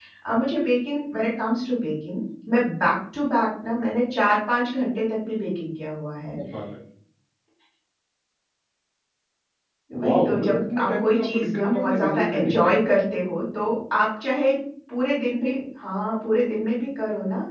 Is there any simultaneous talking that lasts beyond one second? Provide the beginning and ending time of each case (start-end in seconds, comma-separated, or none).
10.0-12.7